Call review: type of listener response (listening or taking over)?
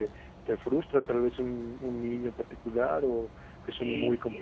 taking over